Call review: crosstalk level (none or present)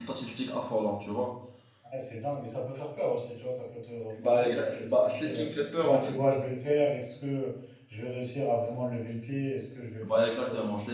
present